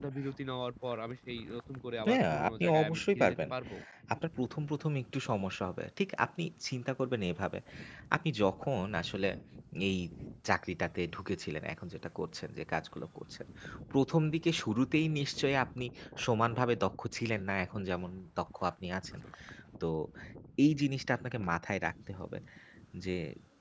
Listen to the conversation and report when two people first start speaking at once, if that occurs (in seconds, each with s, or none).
2.1 s